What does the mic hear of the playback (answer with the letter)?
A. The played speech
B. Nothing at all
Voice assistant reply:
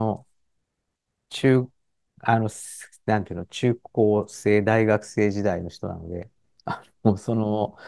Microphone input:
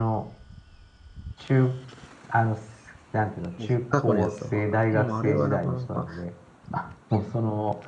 A